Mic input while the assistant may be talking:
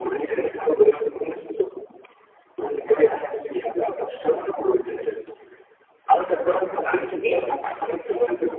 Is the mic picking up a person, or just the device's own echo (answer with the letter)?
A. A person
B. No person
A